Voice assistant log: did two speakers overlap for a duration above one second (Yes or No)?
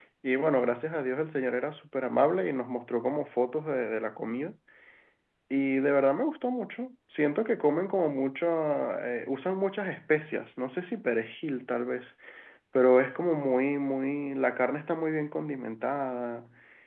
No